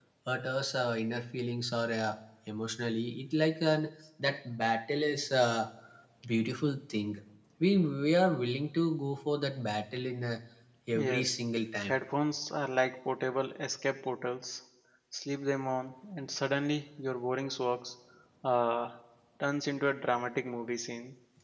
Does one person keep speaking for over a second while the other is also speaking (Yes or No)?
No